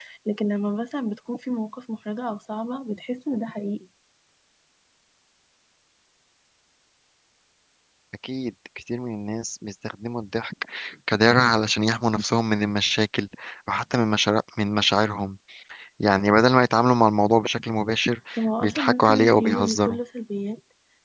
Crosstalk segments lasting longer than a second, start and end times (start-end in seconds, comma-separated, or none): 18.6-20.0